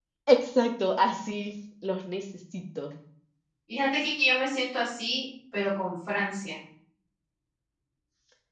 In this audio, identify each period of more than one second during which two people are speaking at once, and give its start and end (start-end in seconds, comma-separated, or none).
none